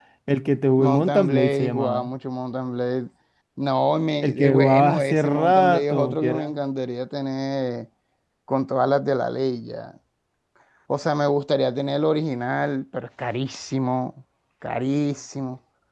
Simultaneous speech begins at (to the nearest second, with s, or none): 1 s